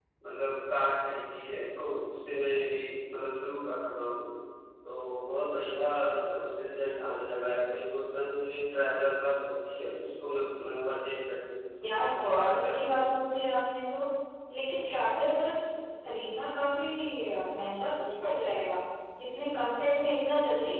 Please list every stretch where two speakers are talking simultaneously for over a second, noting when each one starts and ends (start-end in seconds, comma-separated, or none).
11.8-13.3